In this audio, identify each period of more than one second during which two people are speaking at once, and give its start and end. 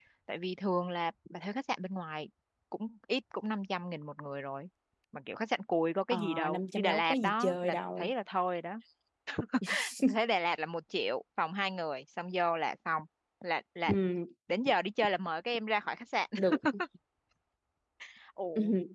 6.1-8.1

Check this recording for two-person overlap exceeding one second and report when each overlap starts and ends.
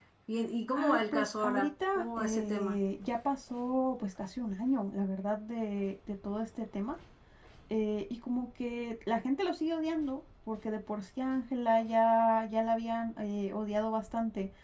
0.7-2.8

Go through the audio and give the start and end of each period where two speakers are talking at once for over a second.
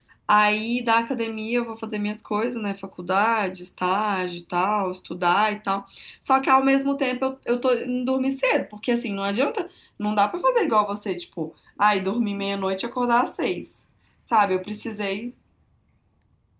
none

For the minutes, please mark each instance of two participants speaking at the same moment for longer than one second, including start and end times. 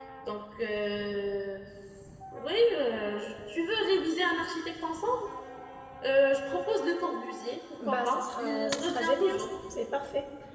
7.9-9.4

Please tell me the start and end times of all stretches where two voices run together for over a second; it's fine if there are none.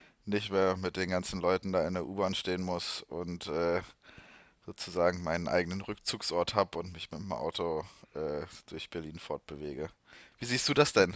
none

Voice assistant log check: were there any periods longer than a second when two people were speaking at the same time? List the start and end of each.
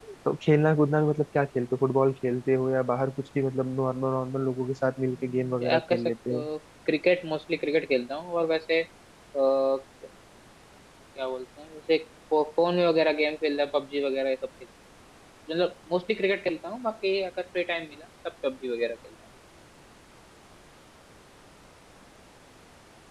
5.3-6.5

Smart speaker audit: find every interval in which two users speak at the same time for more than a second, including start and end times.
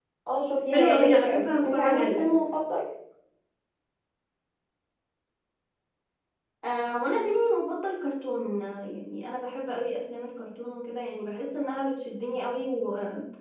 0.7-2.2

